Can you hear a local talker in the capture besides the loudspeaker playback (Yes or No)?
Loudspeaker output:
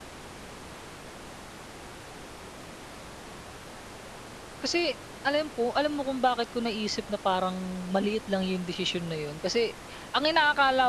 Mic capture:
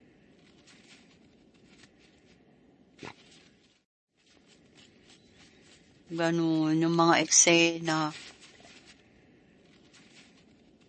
Yes